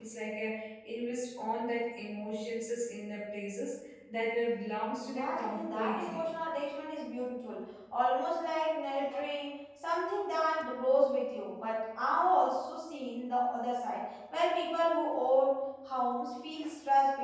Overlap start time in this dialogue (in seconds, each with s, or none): 5.0 s